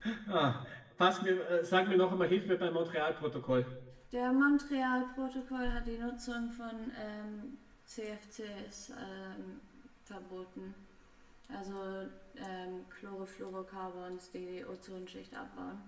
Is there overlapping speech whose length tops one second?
No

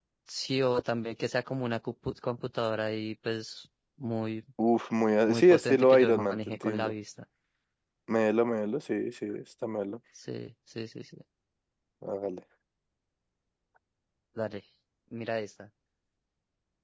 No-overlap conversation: No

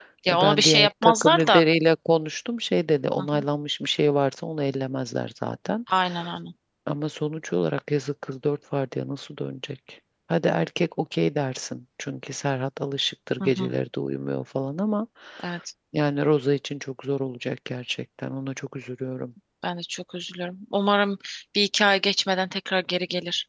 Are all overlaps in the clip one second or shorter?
No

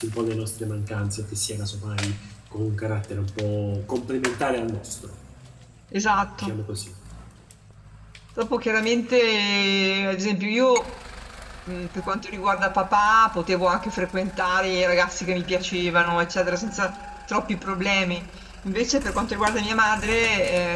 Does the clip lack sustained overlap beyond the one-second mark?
Yes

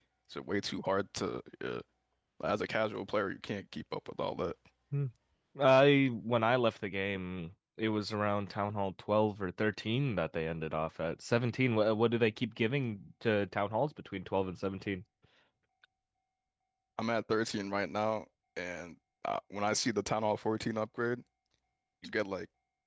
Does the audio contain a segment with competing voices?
No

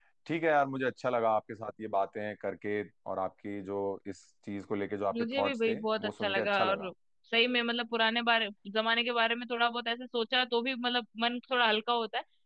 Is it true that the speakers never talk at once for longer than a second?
No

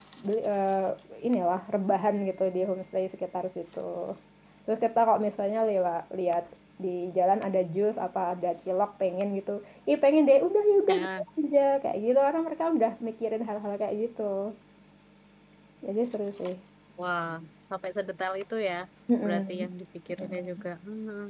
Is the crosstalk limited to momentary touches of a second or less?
Yes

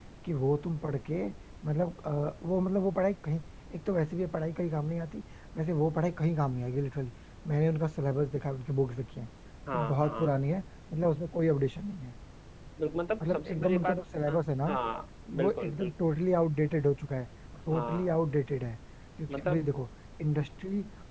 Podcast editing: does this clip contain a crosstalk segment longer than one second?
Yes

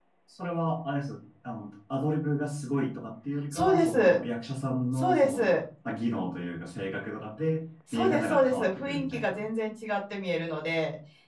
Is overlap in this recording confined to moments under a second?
No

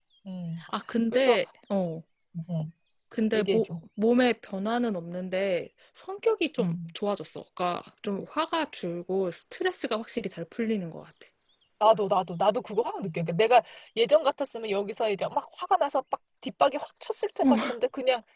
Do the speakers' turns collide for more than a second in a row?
No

